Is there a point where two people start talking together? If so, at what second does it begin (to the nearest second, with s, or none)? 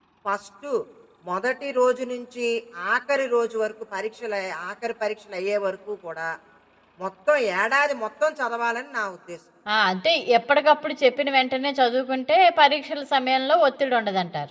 none